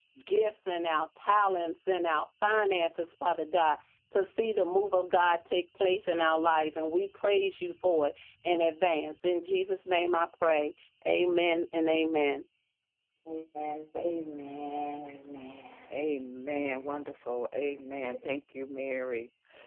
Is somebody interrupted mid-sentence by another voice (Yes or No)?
No